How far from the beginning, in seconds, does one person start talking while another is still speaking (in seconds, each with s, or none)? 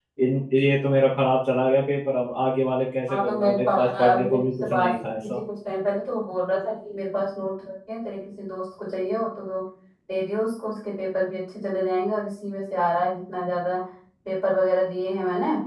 3.1 s